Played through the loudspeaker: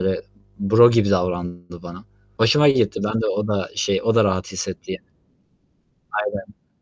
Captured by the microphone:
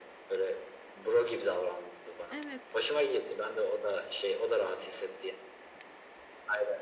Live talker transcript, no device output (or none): Evet,